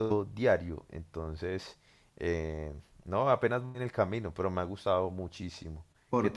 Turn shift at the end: Yes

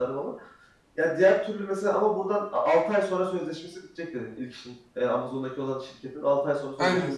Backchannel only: No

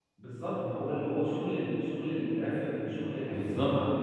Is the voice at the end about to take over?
No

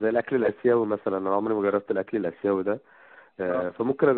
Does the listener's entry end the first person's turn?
No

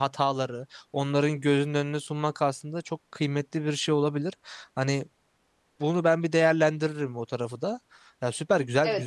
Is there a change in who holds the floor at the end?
Yes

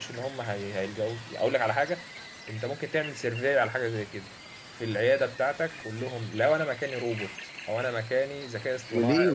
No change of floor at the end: No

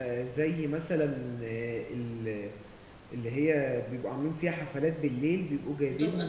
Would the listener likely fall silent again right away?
Yes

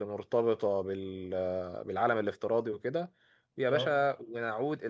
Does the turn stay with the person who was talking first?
Yes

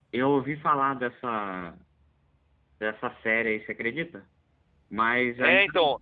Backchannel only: No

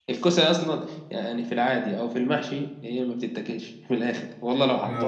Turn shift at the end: No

